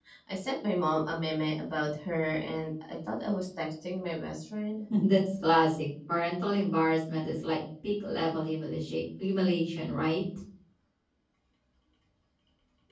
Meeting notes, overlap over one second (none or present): none